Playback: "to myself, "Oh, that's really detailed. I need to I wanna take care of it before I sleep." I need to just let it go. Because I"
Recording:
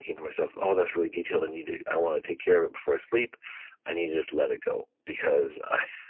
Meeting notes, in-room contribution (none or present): none